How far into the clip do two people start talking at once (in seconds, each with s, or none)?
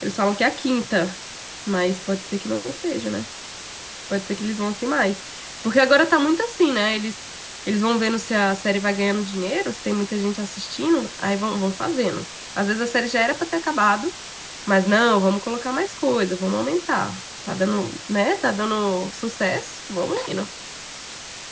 none